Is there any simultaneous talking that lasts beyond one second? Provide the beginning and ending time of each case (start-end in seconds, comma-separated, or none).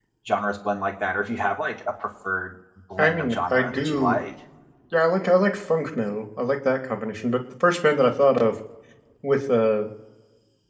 3.0-4.2